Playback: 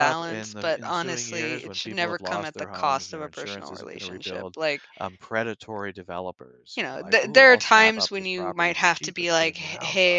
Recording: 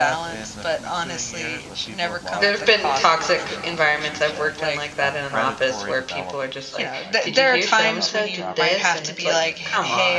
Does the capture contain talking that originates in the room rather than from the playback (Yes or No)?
Yes